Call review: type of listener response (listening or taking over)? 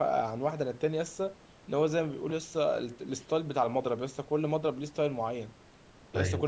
listening